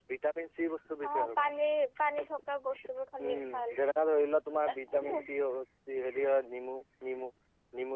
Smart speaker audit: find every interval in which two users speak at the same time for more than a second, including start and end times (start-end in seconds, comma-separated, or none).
none